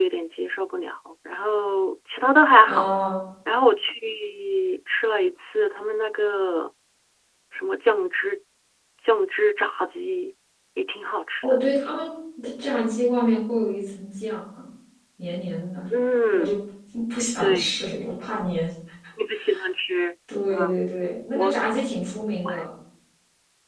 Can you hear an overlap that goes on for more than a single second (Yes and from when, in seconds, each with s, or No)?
No